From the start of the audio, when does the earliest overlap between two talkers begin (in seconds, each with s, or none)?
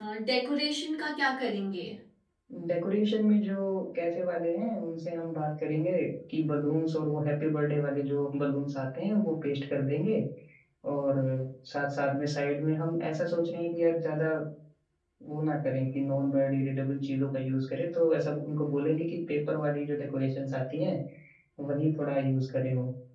none